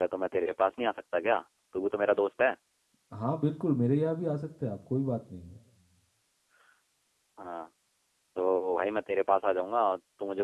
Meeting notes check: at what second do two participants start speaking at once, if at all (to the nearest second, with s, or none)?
none